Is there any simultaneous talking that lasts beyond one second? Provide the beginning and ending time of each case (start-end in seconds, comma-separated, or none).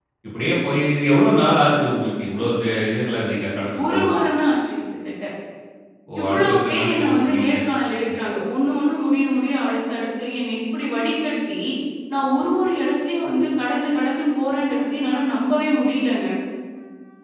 6.2-7.6